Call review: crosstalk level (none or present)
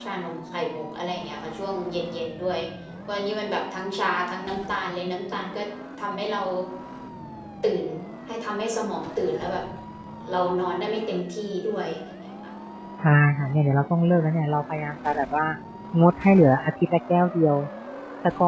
none